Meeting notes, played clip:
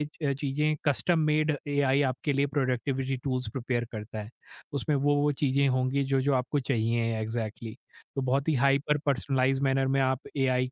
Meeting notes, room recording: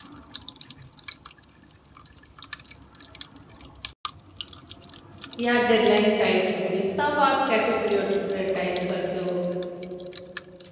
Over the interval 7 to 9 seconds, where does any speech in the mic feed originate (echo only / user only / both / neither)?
user only